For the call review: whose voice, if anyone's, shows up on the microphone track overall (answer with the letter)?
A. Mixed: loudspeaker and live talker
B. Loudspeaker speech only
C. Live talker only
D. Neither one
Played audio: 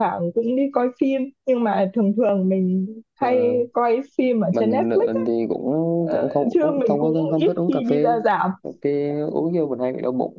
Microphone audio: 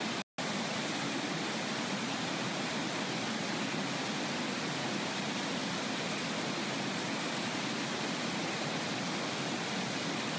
D